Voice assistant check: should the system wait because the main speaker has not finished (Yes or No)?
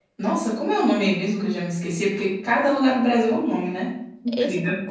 No